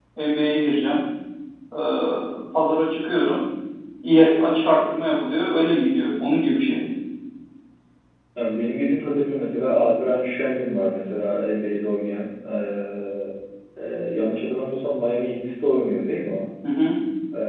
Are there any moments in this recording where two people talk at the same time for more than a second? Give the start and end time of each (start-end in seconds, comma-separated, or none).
none